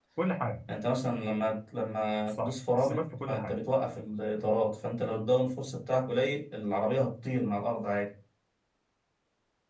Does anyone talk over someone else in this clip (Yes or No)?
Yes